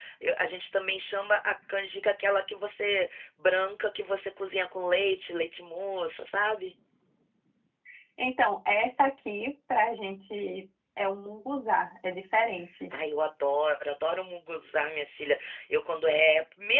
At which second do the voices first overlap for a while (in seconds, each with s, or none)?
none